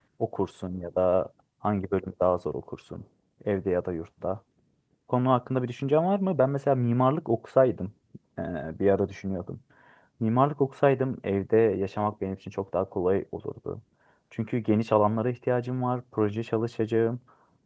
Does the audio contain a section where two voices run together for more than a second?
No

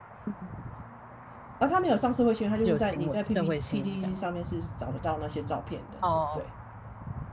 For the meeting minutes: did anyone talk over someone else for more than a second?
Yes, from 2.6 s

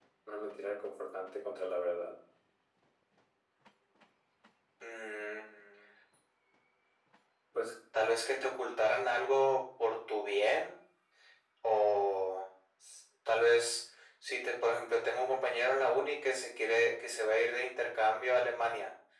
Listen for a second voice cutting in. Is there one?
No

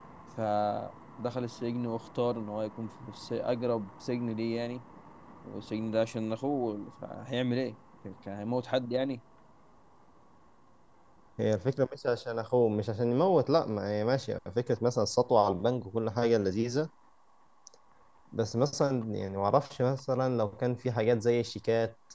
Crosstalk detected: No

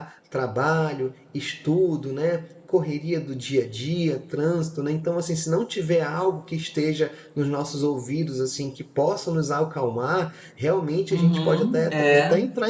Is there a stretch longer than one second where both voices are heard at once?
Yes, from 11.1 s

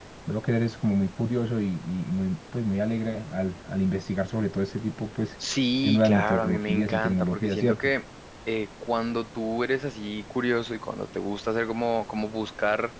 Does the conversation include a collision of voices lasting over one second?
Yes, from 5.8 s

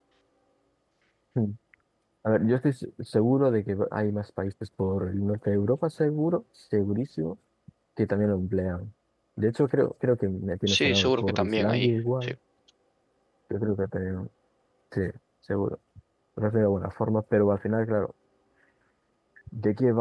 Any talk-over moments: Yes, from 10.7 s

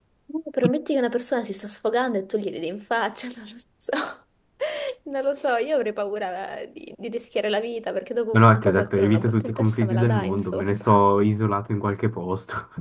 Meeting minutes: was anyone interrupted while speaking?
Yes, from 8.3 s

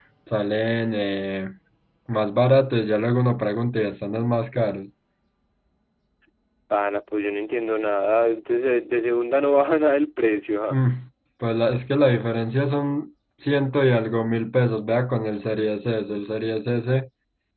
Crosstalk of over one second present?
No

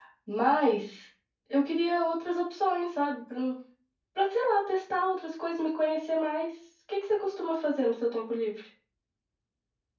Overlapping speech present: No

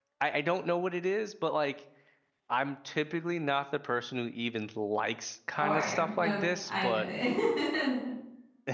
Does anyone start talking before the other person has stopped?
Yes, from 5.6 s

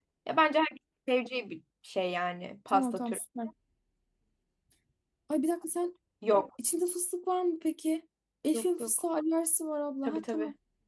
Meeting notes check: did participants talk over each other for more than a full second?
No

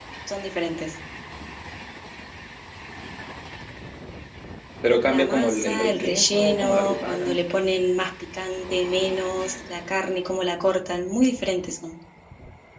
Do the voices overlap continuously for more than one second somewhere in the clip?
Yes, from 5.0 s

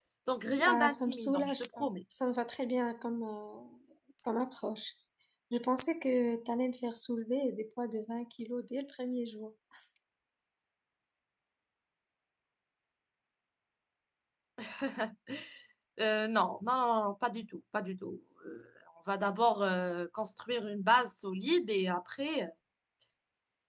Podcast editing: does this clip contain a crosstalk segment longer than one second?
Yes, from 0.6 s

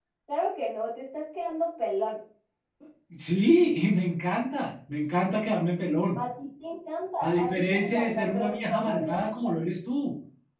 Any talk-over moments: Yes, from 7.2 s

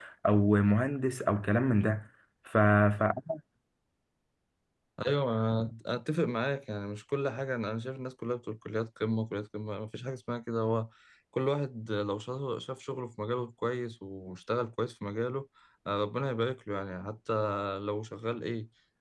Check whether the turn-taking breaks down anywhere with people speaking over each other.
No

